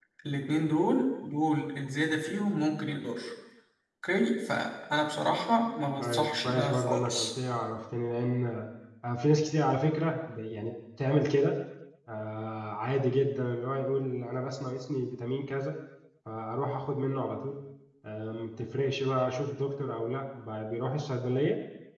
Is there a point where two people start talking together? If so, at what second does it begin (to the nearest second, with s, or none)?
6 s